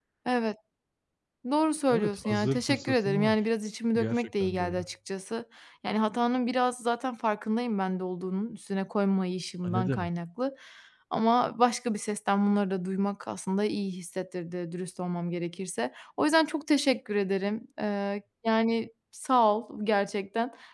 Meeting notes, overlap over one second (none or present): present